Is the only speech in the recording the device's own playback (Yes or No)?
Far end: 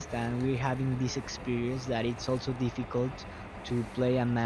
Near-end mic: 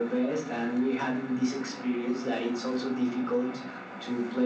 Yes